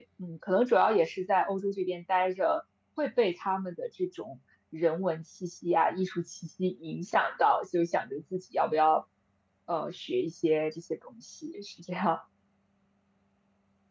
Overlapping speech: No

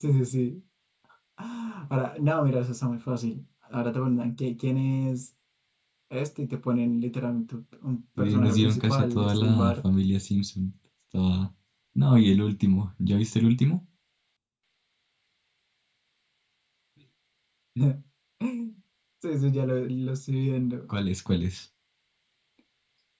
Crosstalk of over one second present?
Yes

